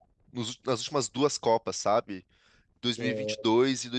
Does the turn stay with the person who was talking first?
Yes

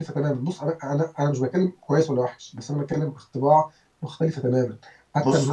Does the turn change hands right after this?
Yes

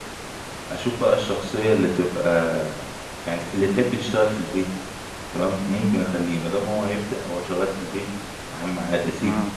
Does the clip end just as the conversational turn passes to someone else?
No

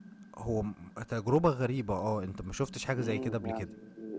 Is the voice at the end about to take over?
Yes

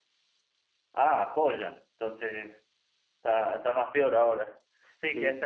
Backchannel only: Yes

